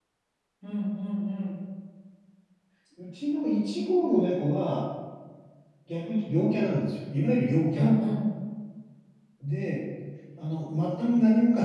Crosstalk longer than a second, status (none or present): none